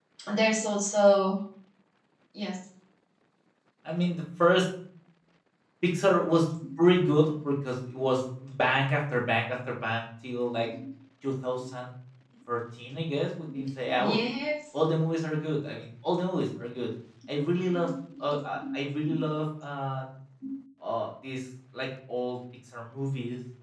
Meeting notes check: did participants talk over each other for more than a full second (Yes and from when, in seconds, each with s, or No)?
No